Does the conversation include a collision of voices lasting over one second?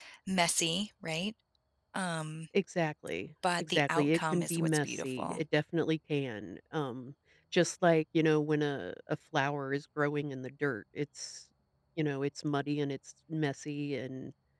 Yes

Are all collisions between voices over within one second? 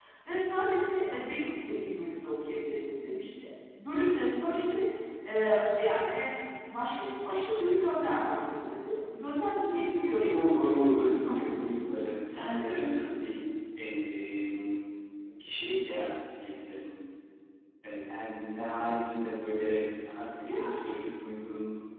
No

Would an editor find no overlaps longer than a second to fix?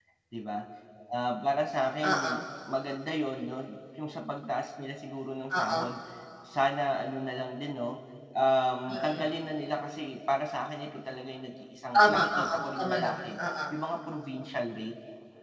No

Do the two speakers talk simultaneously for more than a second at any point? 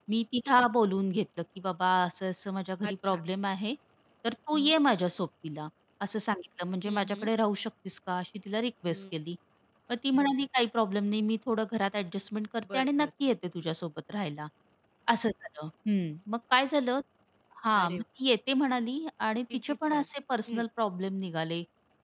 No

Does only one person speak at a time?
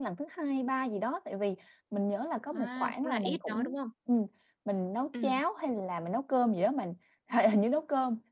No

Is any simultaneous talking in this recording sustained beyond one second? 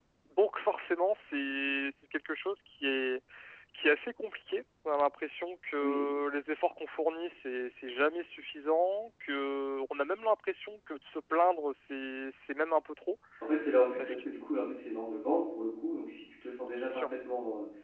No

